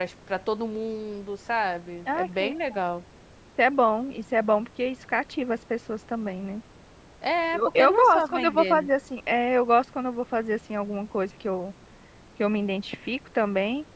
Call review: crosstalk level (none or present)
present